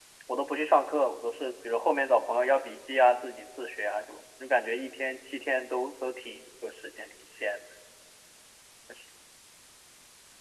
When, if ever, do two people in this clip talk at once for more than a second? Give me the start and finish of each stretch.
none

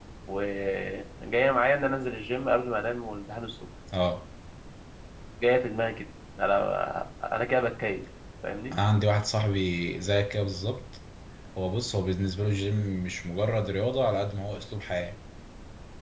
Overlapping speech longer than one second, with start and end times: none

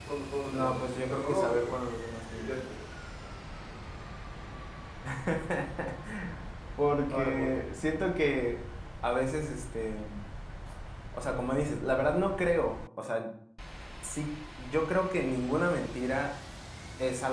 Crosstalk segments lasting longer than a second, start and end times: 0.5-1.8

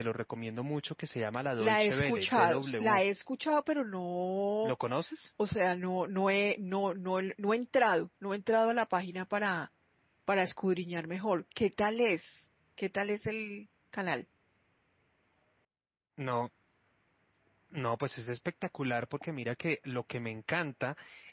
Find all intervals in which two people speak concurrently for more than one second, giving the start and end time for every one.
1.6-3.0

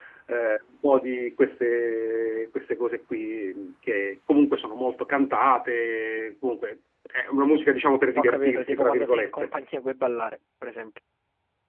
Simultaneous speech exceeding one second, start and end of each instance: 8.2-9.5

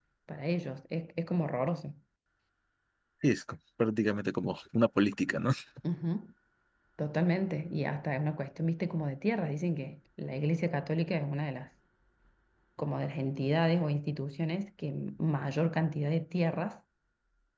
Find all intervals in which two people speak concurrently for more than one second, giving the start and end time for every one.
none

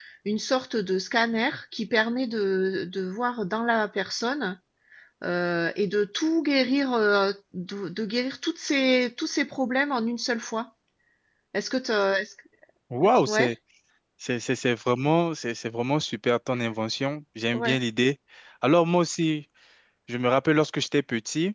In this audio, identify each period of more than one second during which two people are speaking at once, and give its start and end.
none

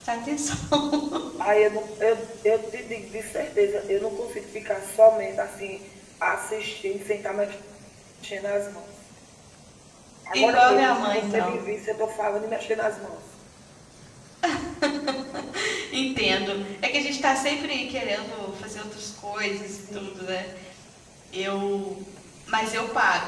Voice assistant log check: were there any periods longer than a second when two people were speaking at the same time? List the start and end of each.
10.3-11.6

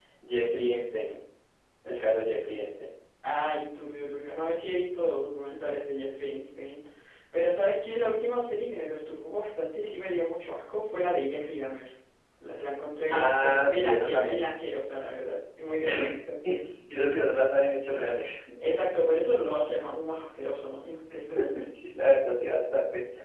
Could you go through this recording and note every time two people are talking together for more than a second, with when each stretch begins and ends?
13.1-14.5

